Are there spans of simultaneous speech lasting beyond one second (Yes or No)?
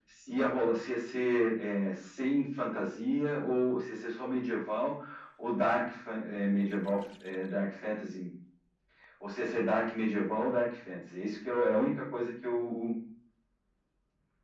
No